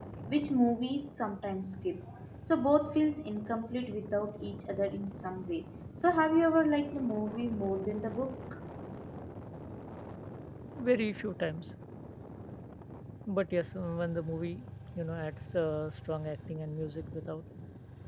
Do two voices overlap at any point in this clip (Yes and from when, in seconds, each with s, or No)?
No